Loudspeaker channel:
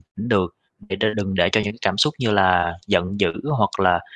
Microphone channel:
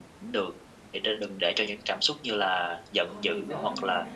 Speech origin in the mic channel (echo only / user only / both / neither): both